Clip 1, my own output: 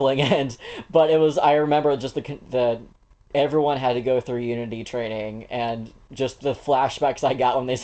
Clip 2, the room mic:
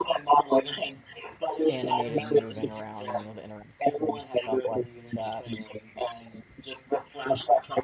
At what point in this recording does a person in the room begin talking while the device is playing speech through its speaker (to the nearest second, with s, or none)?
2 s